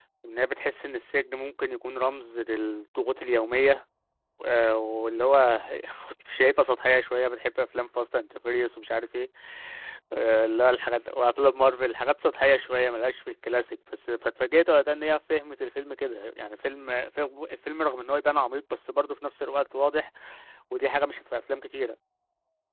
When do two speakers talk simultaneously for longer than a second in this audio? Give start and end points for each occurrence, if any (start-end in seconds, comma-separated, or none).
none